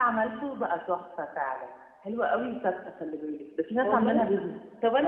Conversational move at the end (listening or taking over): taking over